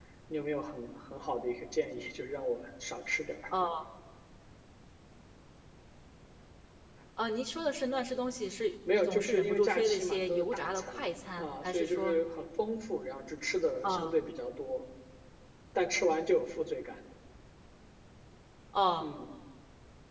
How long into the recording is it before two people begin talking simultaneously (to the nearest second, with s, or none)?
9 s